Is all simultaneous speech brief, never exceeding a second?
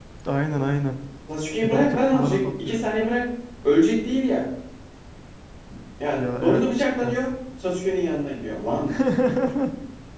No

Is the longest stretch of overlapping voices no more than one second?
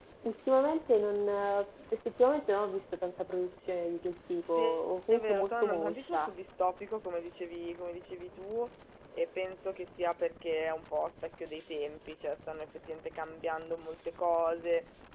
No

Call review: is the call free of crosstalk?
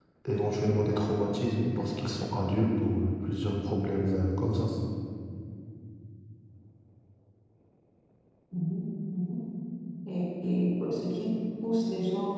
Yes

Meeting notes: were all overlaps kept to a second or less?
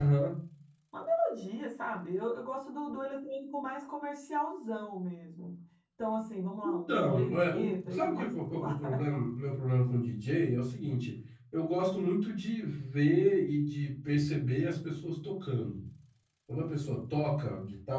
No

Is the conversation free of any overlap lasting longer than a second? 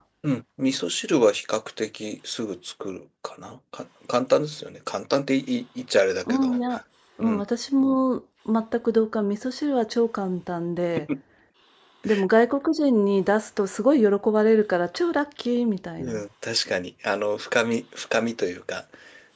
Yes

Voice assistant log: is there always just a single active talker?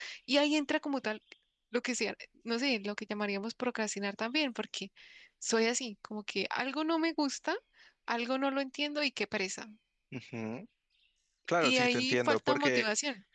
No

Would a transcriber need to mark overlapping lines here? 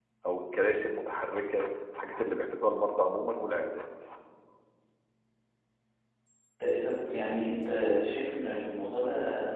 No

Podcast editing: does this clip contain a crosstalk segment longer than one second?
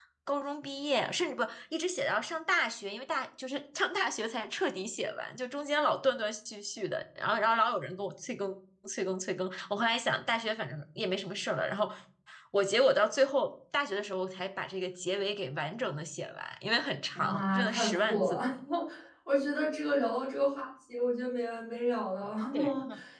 Yes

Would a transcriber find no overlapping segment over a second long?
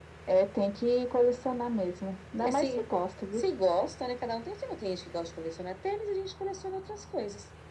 Yes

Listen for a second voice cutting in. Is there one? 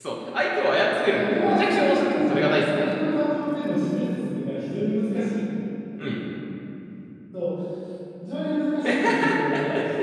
Yes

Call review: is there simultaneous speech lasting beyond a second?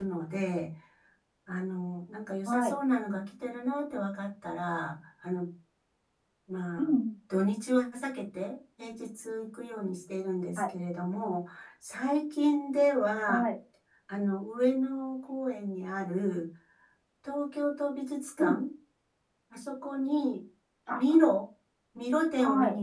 No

